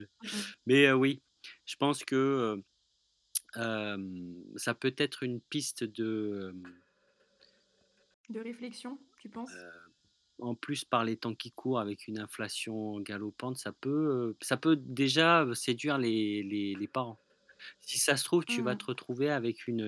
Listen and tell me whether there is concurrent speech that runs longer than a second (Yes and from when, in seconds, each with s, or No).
No